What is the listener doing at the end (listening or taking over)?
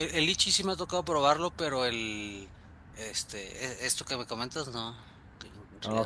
taking over